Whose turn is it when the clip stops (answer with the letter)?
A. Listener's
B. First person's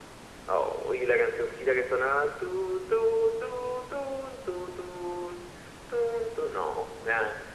A